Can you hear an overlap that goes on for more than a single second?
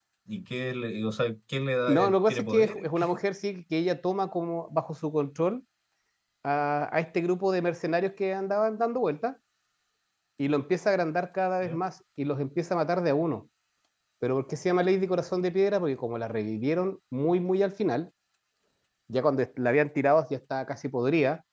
Yes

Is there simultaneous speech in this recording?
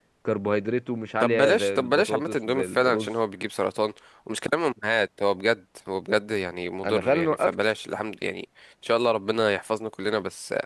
Yes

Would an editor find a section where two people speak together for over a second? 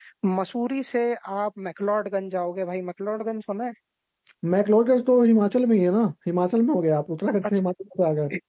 No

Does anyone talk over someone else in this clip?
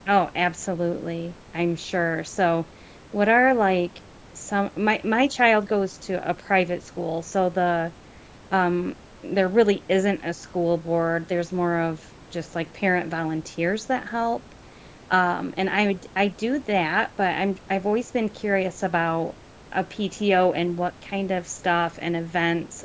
No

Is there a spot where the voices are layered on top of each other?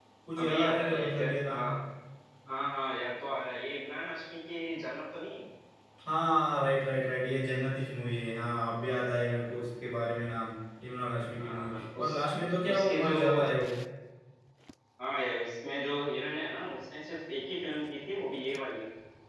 Yes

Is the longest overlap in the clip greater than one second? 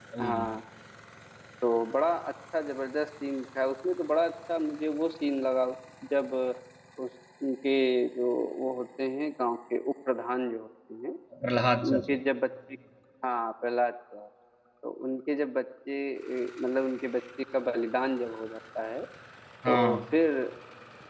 No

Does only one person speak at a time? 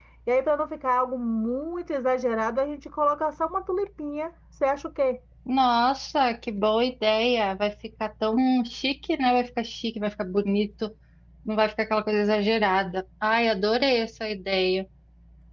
Yes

